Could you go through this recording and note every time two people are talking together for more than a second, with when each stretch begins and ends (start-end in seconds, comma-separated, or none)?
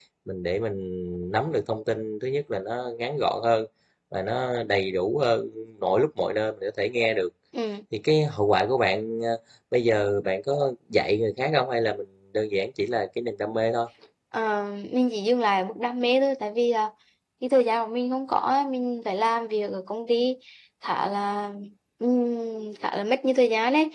none